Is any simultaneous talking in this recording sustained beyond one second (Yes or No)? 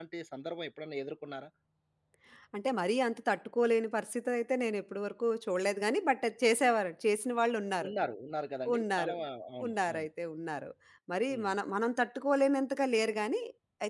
No